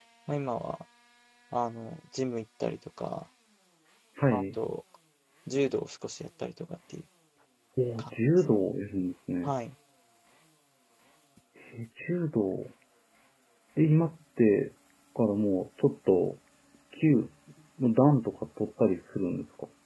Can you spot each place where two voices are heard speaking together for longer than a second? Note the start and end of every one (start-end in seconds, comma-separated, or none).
none